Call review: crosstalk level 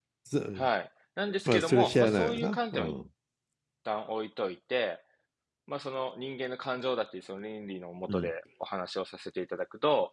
present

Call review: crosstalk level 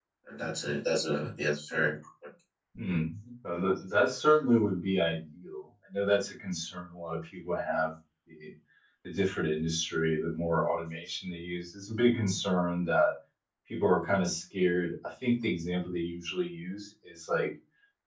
none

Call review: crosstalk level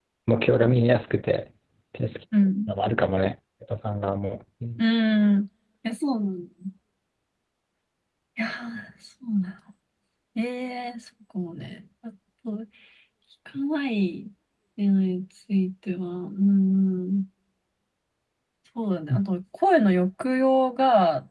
none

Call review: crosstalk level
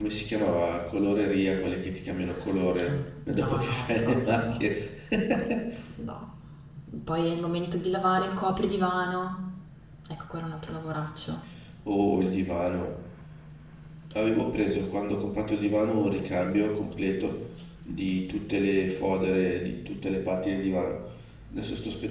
present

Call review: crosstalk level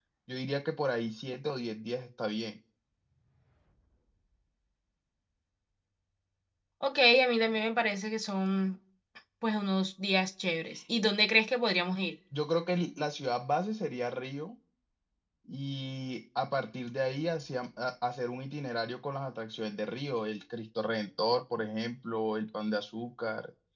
none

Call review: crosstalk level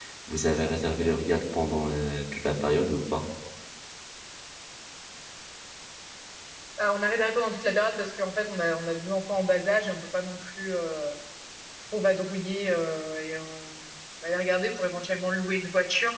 none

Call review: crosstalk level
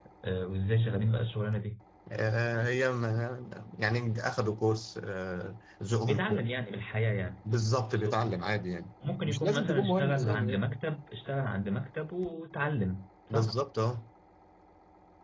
present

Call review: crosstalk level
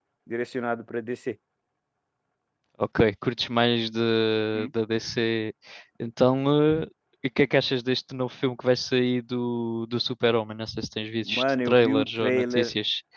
present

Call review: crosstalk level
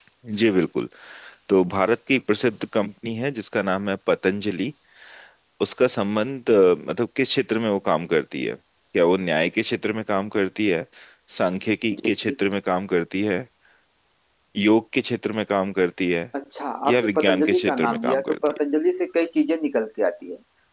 present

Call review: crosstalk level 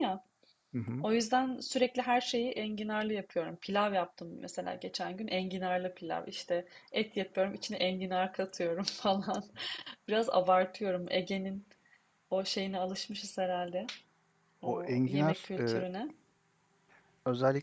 present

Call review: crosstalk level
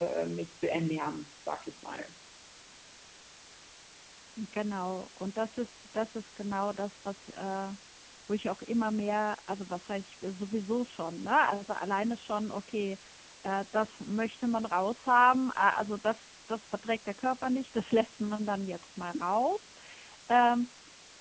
none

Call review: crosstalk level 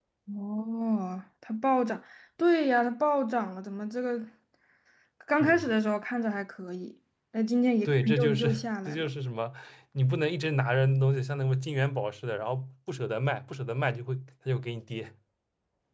present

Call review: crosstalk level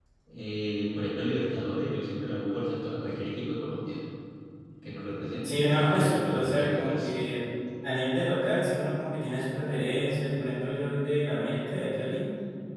present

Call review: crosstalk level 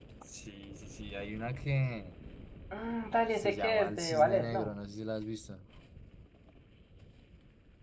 present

